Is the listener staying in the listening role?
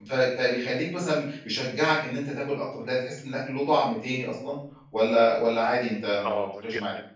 No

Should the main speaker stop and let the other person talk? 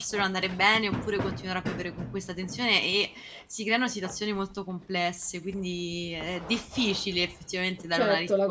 Yes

